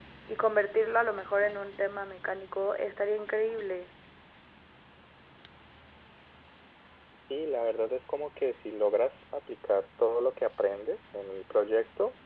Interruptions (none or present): none